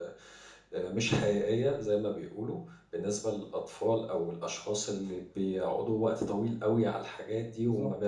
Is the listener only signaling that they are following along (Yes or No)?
Yes